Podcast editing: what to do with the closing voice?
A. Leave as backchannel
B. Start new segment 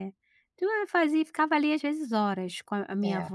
A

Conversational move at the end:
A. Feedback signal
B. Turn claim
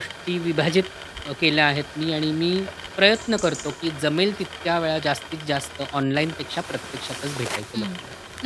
B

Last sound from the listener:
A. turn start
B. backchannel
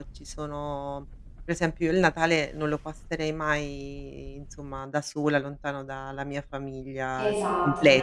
A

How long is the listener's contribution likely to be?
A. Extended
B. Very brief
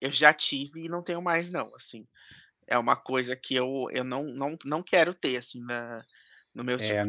A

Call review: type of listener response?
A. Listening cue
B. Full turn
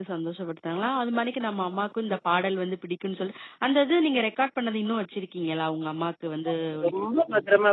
B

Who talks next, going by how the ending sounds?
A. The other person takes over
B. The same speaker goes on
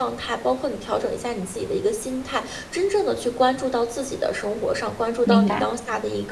B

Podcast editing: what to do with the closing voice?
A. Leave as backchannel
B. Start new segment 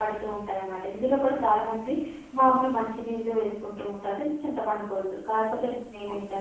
A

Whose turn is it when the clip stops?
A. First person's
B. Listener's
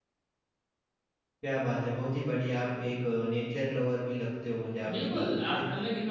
B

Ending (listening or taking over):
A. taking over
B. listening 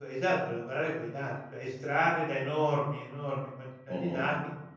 B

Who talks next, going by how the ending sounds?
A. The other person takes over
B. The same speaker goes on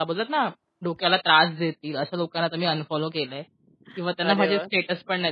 B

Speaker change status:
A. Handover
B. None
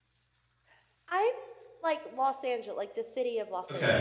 A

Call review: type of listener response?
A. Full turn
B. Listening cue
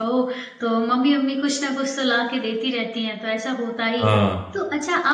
B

